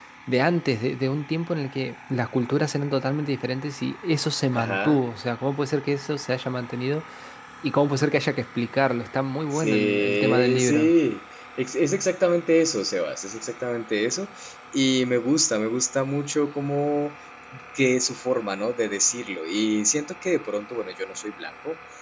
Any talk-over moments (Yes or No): Yes